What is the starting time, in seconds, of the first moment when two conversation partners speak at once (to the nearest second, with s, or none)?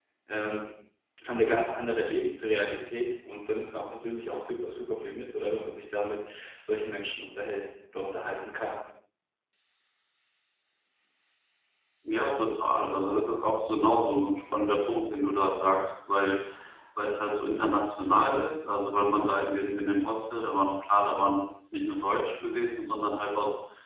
none